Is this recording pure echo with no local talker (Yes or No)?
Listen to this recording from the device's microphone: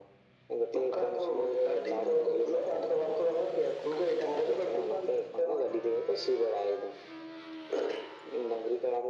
Yes